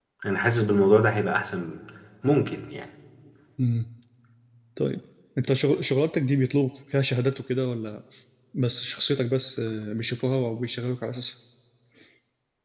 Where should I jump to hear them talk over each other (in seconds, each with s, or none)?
none